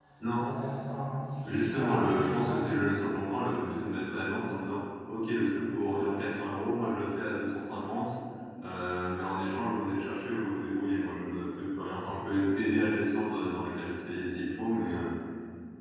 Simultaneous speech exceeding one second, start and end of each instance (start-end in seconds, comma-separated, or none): 1.4-2.6